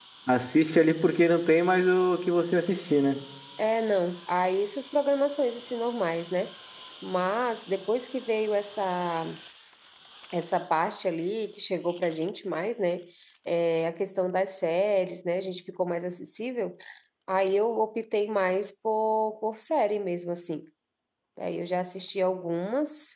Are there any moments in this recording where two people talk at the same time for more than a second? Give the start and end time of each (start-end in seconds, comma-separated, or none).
none